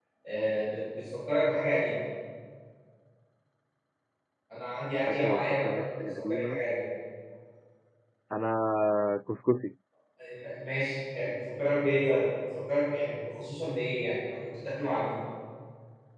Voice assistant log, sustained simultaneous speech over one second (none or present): present